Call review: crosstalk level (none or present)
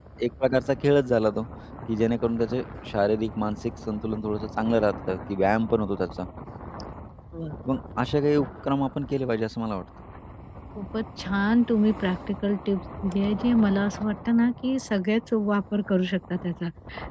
none